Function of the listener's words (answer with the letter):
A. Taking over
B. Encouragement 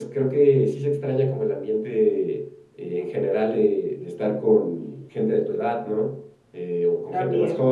B